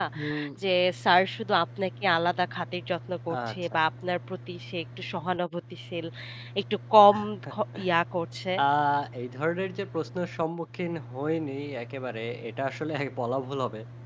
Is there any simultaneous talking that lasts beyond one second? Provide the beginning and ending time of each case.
none

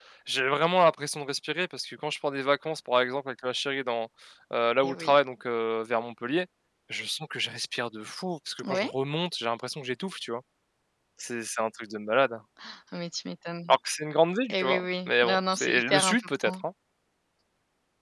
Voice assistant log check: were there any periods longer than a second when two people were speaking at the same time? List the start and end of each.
14.5-16.5

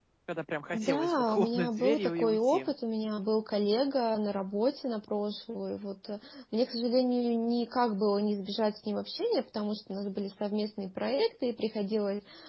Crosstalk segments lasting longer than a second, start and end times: 0.7-2.6

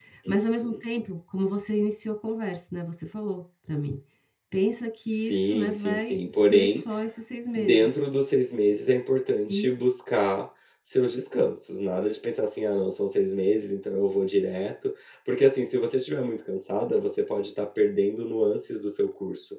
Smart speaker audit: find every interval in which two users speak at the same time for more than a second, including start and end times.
5.1-6.8

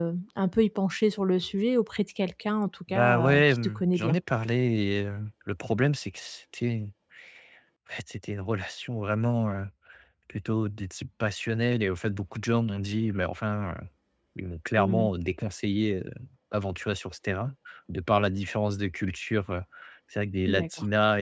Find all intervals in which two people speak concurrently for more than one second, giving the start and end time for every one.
2.9-4.2

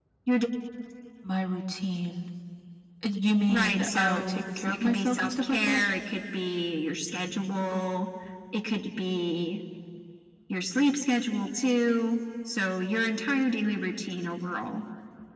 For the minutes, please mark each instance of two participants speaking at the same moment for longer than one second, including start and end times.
3.5-5.8

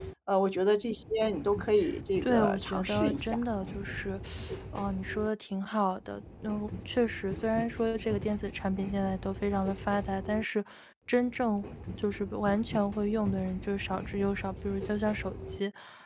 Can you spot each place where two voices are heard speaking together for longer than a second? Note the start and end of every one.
2.2-3.4

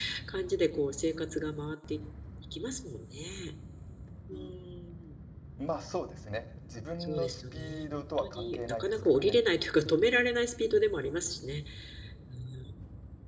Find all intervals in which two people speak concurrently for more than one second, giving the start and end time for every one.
7.0-9.4

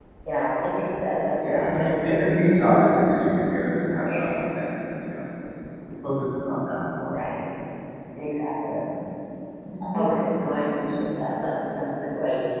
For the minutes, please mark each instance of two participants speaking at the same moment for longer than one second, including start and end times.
1.4-2.9

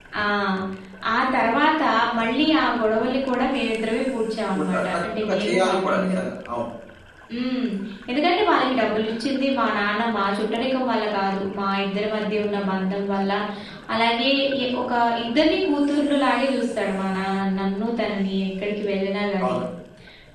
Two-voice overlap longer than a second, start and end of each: 4.5-6.2

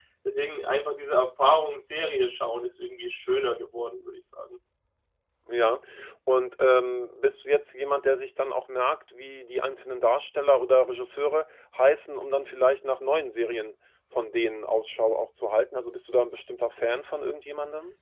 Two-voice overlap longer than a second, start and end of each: none

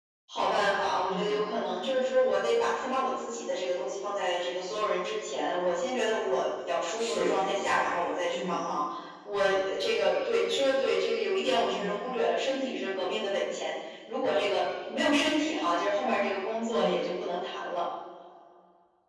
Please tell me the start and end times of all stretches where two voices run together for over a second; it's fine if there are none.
none

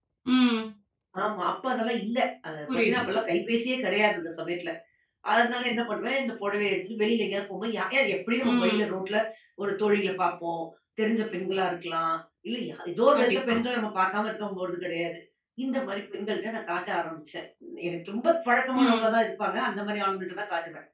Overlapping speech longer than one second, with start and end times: none

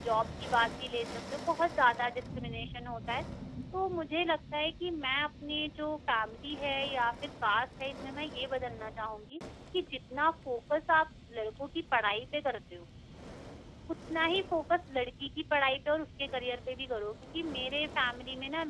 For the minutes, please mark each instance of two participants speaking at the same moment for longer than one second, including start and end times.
none

